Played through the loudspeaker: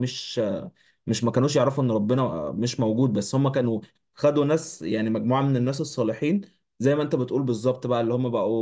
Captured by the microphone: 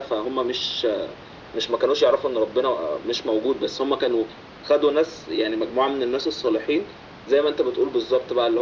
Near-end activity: none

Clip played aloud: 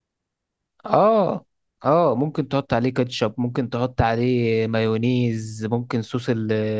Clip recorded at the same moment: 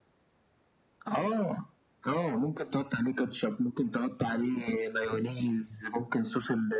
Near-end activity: none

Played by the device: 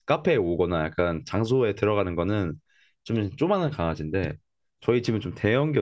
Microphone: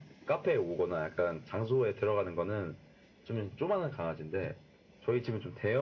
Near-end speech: none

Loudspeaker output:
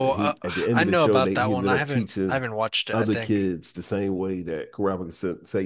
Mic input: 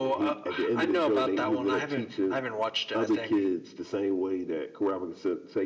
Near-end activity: none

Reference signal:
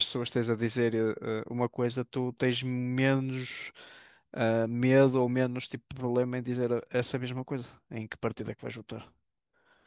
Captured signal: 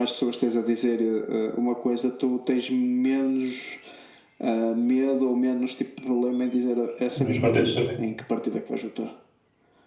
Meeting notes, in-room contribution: present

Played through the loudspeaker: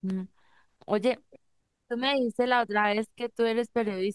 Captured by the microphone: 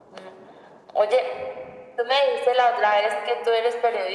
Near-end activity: none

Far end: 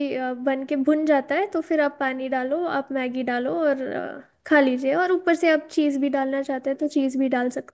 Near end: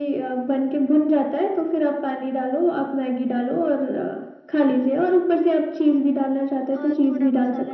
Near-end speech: present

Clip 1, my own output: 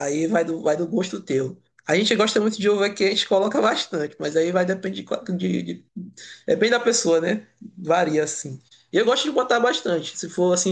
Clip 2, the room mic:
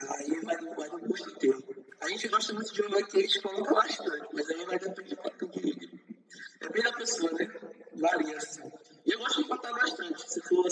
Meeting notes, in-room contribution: none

